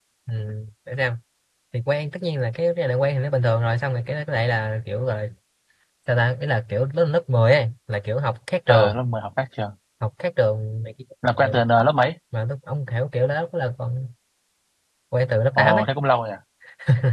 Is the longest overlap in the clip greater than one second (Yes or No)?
No